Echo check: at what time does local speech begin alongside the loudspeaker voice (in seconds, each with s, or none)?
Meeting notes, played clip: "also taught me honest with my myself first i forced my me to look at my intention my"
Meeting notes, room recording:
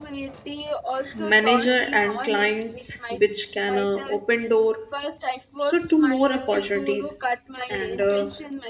1.1 s